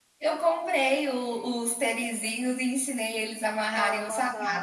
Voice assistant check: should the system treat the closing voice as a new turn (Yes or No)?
No